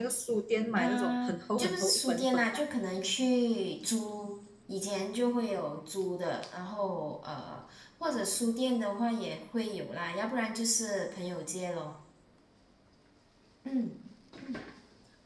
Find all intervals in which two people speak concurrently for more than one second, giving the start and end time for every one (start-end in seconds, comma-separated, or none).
0.8-2.6